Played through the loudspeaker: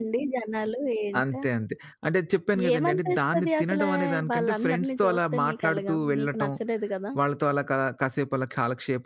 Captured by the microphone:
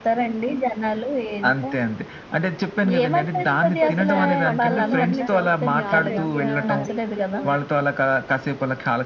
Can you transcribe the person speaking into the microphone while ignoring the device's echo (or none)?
కొద్దిగా చాలా కంట్రోల్‌లో ఉండాలి. మీ ఆరోగ్య రీత్యా గూడా.